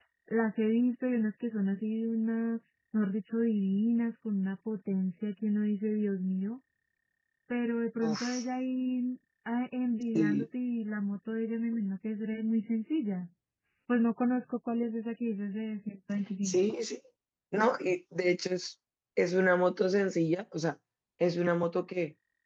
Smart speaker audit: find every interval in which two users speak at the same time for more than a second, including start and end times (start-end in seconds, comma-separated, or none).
none